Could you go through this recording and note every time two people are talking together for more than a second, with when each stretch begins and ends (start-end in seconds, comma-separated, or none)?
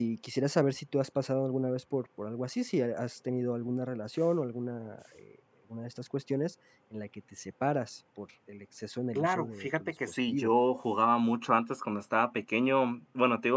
9.2-10.5